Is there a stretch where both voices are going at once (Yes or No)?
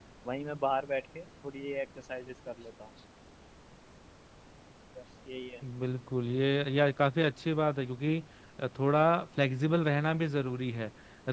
No